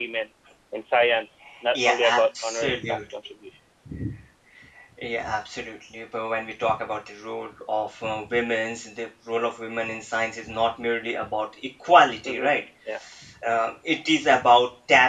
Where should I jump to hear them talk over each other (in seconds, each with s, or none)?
1.7 s